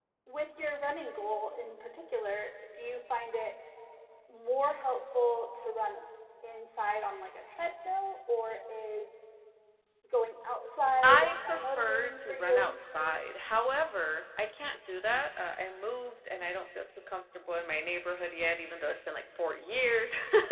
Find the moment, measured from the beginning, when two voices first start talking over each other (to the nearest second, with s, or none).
11 s